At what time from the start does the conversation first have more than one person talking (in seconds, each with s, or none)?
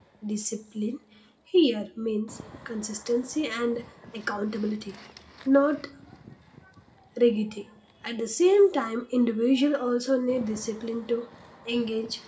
none